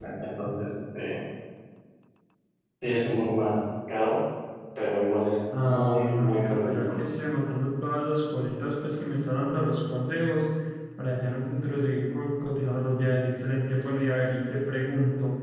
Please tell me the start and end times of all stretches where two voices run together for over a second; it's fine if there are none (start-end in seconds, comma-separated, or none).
5.6-7.0